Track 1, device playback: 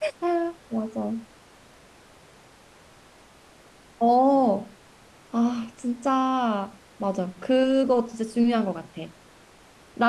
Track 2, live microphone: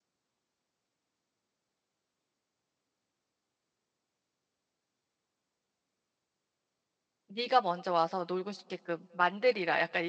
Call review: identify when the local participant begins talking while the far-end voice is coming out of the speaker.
7.3 s

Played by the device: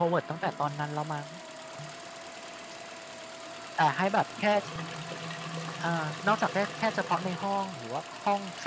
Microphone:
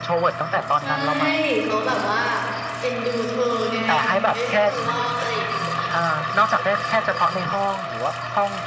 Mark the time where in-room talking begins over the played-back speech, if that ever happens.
0.8 s

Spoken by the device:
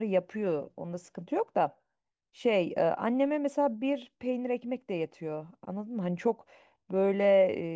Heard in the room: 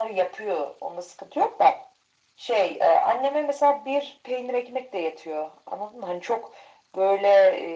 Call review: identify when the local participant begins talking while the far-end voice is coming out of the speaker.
none

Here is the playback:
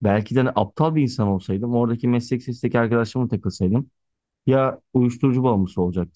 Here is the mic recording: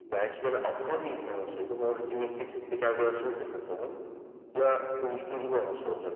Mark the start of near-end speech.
none

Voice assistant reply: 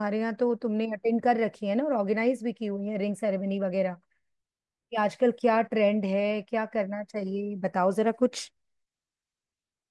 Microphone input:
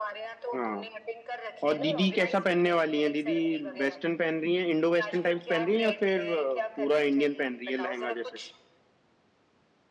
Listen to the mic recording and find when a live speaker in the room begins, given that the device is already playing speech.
0.6 s

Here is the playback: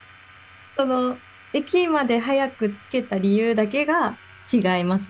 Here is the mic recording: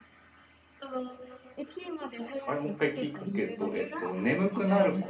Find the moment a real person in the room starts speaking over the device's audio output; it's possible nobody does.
2.5 s

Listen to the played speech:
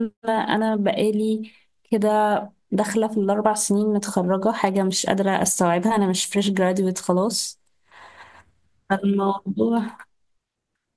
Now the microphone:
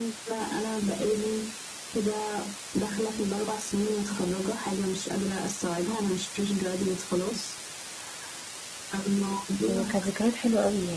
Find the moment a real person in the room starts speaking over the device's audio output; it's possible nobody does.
9.6 s

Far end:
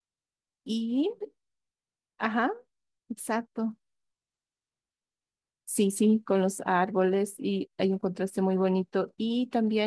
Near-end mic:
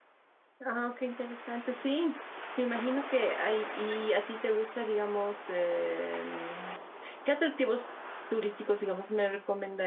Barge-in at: 0.6 s

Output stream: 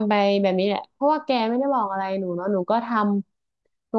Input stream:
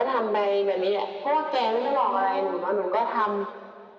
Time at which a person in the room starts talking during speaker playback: 2.1 s

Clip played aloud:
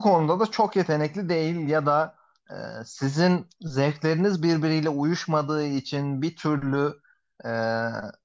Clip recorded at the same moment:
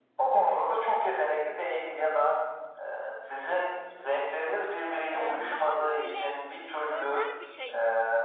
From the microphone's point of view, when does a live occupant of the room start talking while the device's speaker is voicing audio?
5.1 s

